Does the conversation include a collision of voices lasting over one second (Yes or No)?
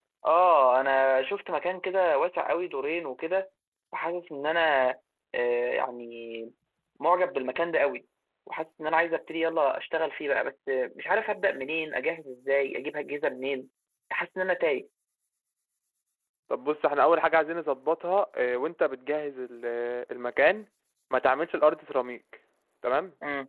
No